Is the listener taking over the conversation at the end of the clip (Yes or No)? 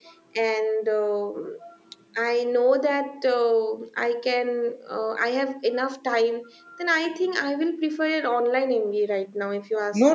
Yes